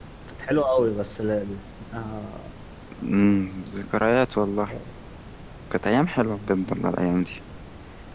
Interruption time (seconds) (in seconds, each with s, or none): none